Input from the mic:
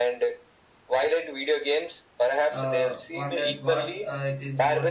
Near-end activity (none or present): present